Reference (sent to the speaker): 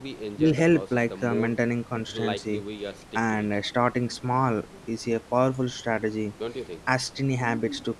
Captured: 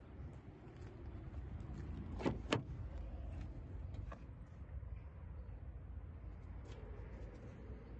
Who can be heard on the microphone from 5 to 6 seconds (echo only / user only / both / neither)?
neither